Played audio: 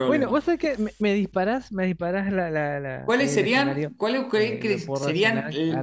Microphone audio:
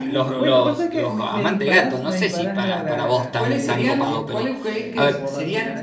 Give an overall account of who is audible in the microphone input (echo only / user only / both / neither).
both